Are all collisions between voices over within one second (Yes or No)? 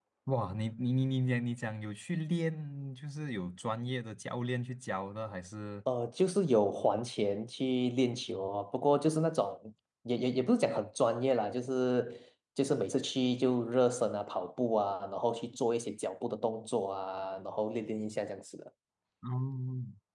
Yes